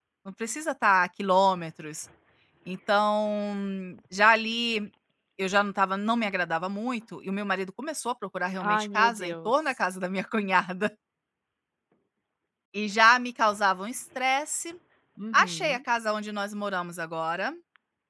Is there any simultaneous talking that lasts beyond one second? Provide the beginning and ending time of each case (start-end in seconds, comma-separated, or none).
8.6-9.8